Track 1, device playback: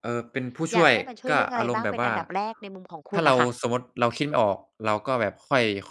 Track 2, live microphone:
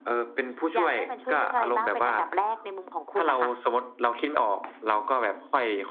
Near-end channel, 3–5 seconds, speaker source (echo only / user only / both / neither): echo only